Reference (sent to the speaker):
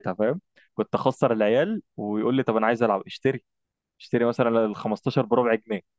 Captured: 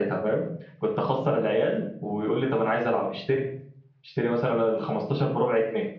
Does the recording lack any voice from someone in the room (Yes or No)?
Yes